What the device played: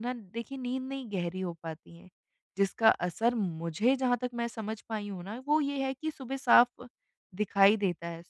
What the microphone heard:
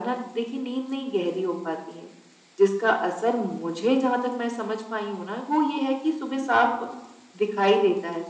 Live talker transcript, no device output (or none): none